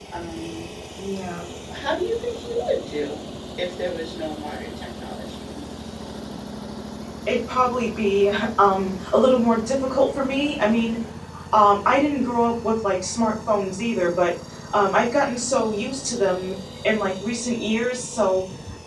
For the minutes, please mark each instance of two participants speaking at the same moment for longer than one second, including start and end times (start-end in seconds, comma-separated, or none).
none